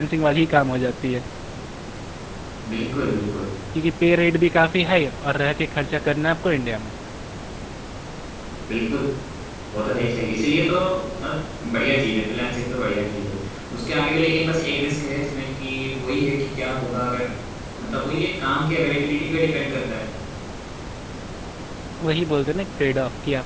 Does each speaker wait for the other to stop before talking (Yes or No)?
Yes